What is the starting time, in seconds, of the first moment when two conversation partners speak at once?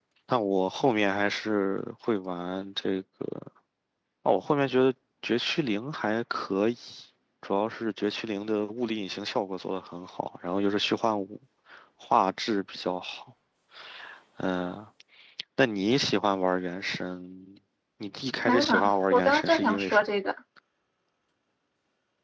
18.5 s

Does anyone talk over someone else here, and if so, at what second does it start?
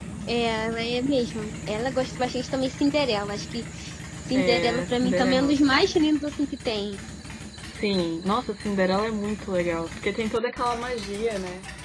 4.3 s

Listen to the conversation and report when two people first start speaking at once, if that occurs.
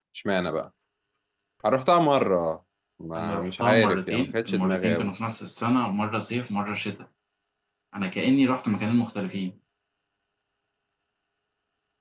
3.1 s

